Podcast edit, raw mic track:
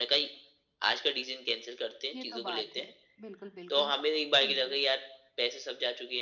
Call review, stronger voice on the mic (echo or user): echo